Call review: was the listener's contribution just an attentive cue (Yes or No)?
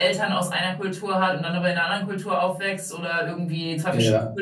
Yes